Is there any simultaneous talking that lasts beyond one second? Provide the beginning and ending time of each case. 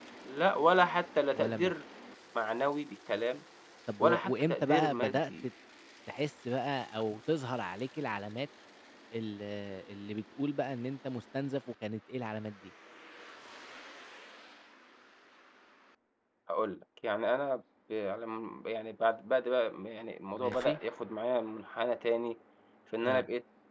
4.0-5.3

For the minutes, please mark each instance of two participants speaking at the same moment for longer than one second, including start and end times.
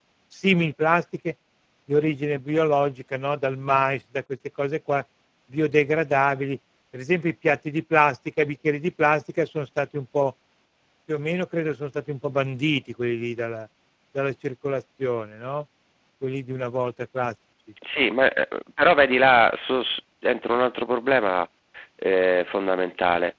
none

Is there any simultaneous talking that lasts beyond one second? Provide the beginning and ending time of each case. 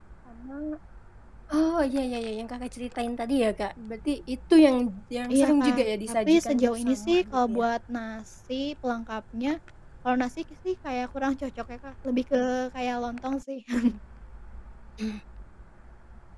5.3-7.6

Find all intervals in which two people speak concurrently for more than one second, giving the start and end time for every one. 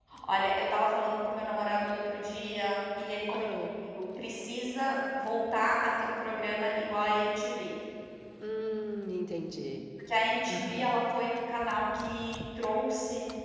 none

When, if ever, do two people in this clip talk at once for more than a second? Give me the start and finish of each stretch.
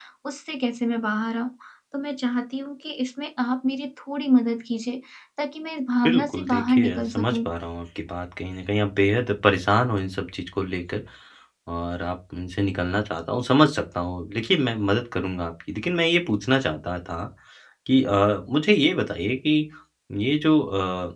6.0-7.5

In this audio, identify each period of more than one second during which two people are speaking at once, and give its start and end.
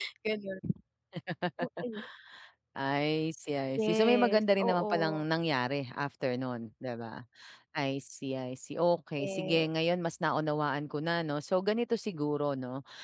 3.8-5.2

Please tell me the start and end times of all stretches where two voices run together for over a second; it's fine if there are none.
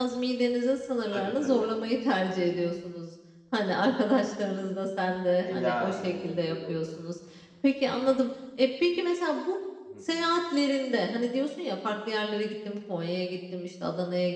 5.4-6.9

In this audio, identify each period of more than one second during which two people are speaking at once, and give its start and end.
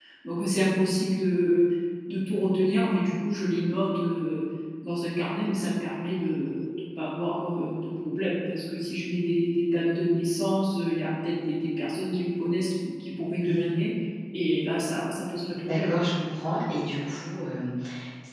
none

